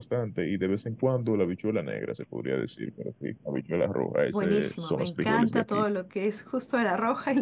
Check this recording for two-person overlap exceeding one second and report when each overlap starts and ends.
4.3-5.8

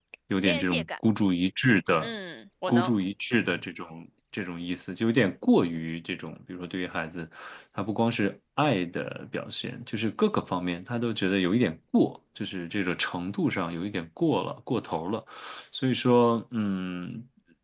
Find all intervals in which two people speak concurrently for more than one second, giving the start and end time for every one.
none

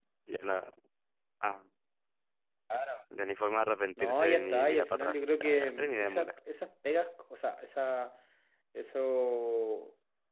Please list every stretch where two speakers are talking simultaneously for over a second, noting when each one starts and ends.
4.0-6.3

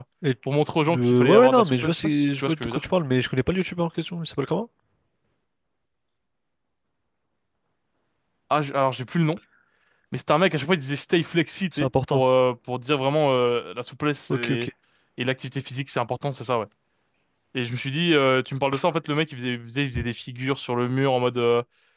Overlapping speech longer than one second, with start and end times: 1.0-2.8

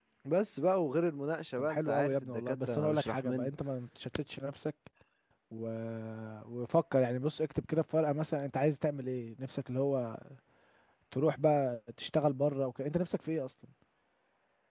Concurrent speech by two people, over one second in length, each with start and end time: 1.6-3.5

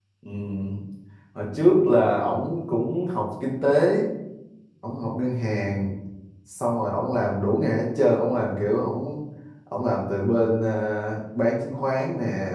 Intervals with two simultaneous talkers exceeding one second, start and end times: none

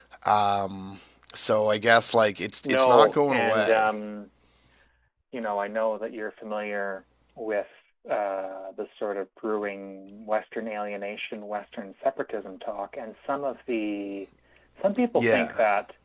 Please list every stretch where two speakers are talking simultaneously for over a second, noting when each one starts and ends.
2.6-3.8

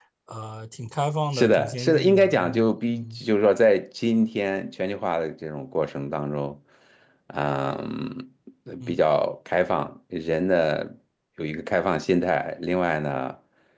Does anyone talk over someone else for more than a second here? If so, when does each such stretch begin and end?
1.3-3.2

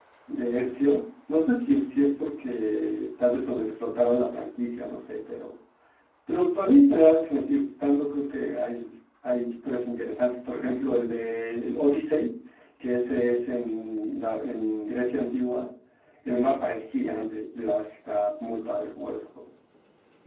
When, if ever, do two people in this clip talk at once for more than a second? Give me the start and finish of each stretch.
none

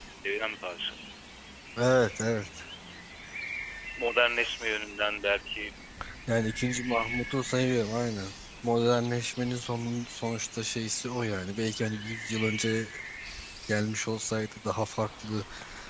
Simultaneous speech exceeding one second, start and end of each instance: none

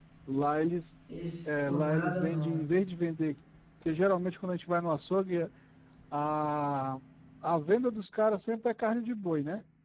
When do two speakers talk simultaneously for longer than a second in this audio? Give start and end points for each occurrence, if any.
1.4-2.7

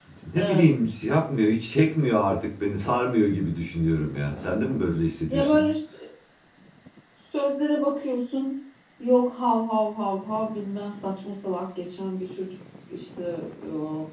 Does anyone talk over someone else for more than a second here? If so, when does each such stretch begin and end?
none

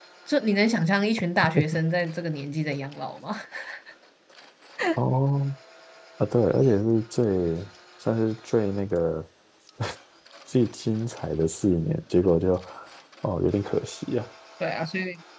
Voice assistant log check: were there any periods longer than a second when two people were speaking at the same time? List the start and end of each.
none

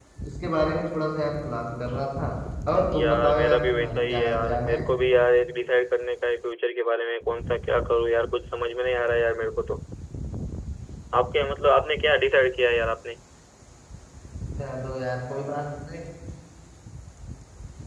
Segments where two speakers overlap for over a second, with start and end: 2.9-4.8

